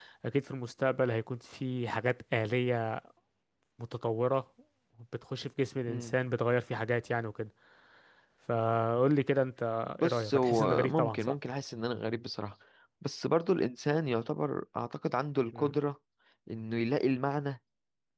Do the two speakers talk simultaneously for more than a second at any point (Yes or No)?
Yes